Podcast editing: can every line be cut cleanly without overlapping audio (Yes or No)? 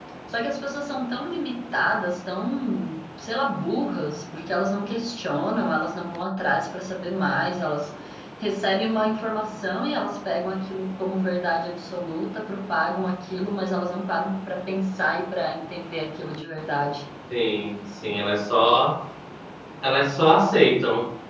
Yes